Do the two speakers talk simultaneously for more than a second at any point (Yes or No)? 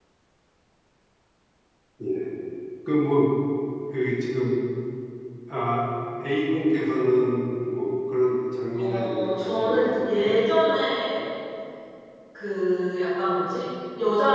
Yes